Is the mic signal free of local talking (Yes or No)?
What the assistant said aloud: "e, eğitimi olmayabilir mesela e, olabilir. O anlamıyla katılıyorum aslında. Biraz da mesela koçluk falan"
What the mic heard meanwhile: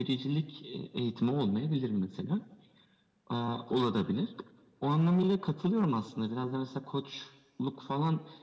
Yes